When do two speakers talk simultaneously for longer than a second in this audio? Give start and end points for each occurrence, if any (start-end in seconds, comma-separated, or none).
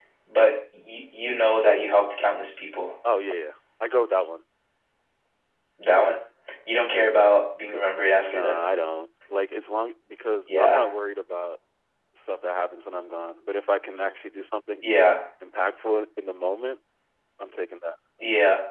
none